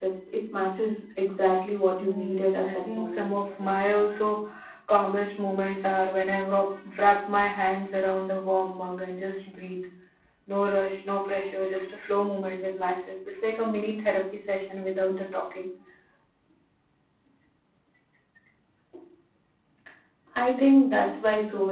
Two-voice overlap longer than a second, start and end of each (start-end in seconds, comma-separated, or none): 2.0-3.3